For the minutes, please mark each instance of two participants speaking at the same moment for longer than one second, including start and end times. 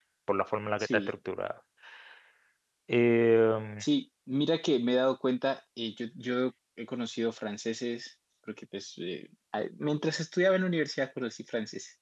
none

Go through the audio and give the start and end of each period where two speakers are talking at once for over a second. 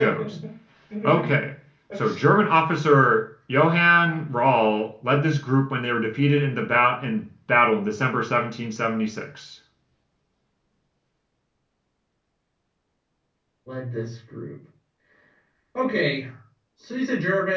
none

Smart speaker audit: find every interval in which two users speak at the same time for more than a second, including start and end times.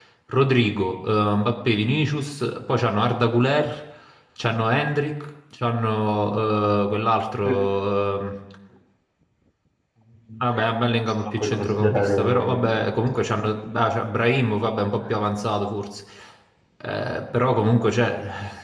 10.5-12.9

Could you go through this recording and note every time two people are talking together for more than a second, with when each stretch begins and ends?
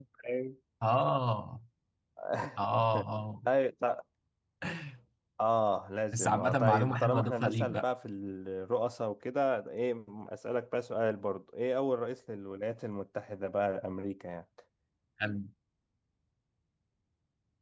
6.1-7.8

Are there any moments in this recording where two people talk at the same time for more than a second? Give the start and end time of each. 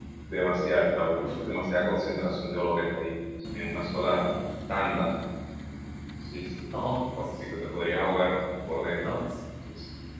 none

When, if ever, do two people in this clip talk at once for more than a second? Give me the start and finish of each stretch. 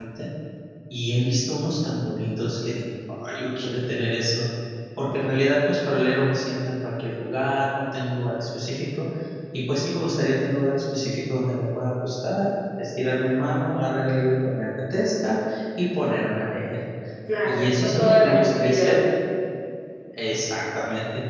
17.4-19.0

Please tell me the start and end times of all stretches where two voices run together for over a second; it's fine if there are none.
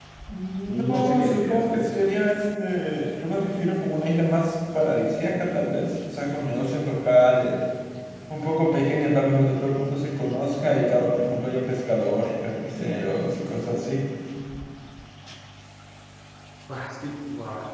0.7-1.9

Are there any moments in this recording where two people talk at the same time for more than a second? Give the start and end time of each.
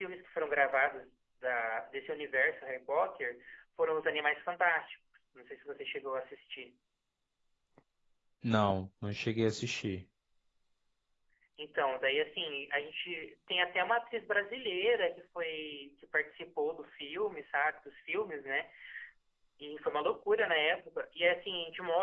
none

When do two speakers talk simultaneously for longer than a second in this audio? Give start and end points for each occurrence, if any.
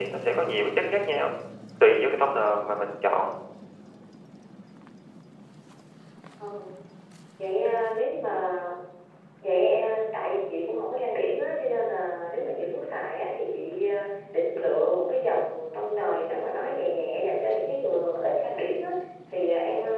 none

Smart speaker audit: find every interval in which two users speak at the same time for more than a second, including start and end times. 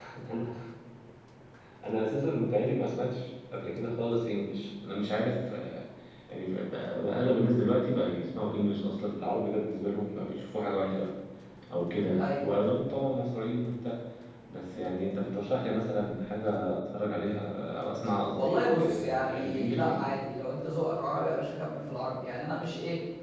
18.4-20.0

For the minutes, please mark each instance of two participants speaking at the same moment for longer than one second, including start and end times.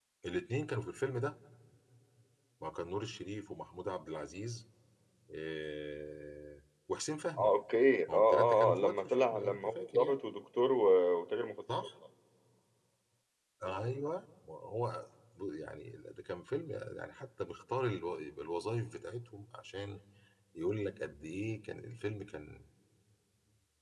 8.1-10.2

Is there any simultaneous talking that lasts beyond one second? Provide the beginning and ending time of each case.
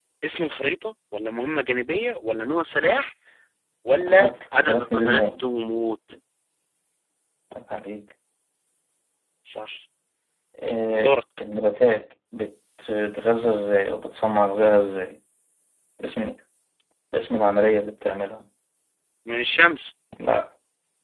4.1-5.4

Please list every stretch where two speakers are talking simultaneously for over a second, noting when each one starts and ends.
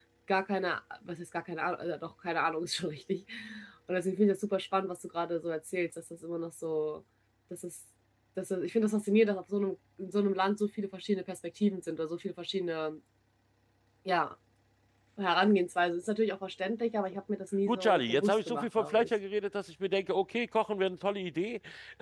17.7-19.1

